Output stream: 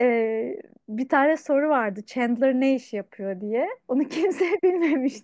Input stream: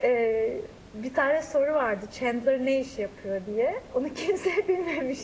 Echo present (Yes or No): Yes